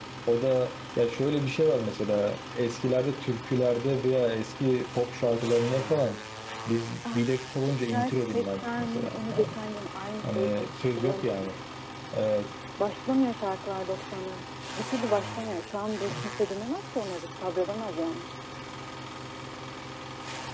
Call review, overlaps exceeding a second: present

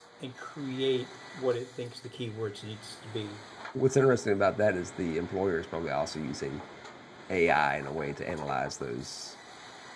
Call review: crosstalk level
none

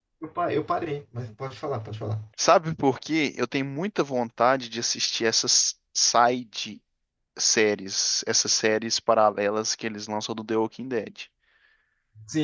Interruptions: none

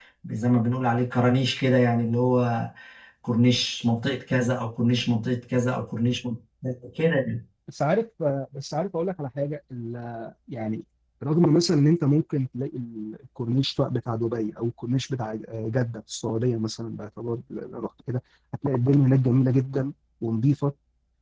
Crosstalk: none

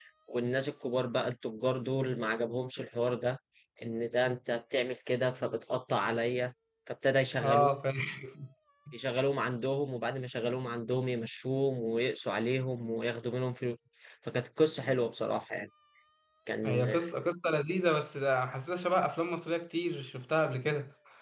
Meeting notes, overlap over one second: none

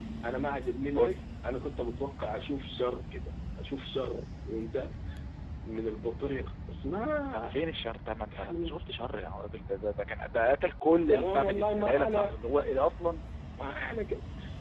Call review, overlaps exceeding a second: present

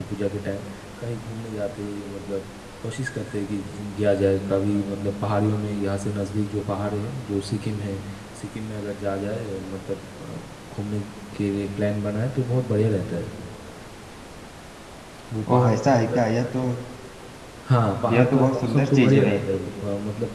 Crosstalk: present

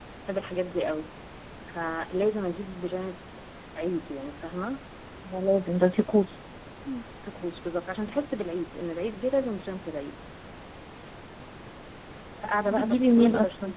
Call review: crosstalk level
present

